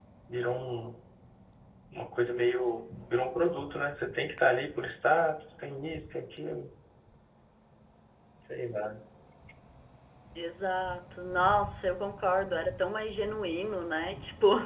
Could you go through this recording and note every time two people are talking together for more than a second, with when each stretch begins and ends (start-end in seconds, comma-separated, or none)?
none